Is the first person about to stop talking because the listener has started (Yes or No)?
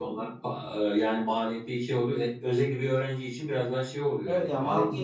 Yes